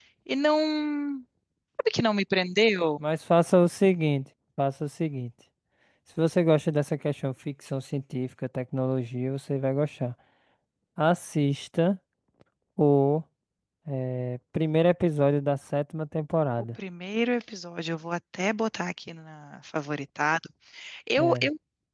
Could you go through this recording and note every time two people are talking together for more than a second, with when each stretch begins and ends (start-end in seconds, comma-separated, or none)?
none